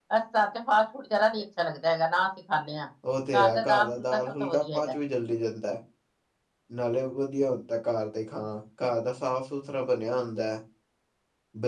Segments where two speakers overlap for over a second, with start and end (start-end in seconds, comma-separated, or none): 3.4-4.9